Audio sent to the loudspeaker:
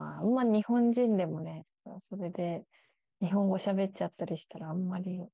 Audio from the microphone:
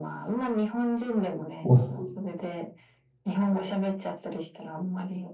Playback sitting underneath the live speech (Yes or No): Yes